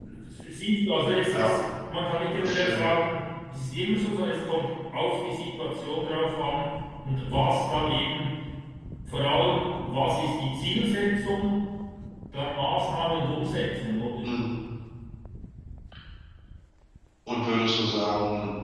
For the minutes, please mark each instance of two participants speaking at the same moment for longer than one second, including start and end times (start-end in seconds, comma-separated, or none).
none